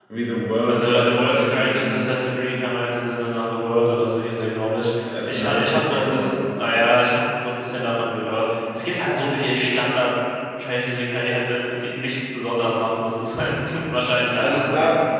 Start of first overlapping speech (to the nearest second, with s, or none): 1 s